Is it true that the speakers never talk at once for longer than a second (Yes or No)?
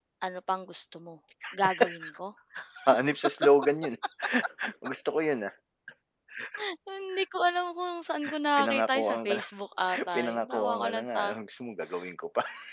No